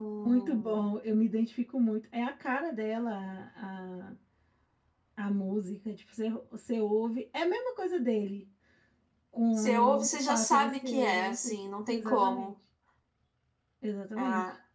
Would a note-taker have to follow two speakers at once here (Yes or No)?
Yes